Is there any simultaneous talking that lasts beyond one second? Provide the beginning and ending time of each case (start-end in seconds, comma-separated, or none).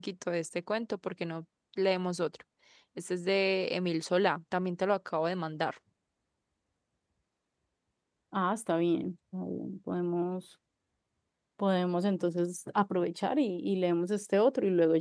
none